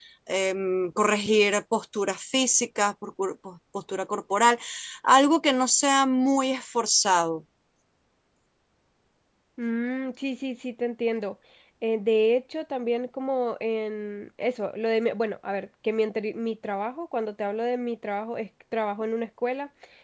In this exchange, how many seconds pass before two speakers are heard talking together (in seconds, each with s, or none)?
none